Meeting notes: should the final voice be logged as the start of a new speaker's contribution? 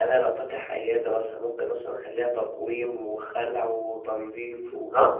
Yes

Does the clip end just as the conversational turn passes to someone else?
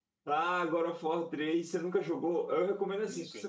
No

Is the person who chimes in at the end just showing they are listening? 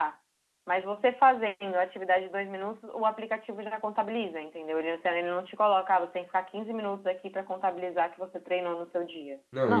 No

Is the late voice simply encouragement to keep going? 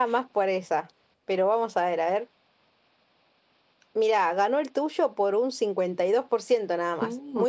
No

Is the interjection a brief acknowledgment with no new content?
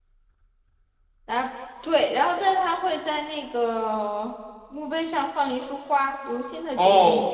No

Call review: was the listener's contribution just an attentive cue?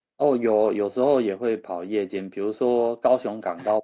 Yes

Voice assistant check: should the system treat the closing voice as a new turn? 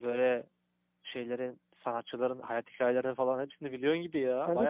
Yes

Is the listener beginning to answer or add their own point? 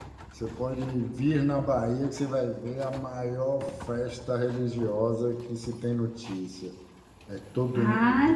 Yes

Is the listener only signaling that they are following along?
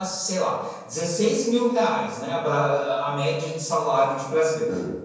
Yes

